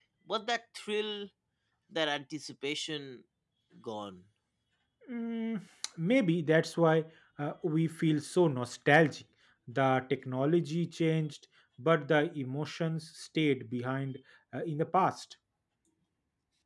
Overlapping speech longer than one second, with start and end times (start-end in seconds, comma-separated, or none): none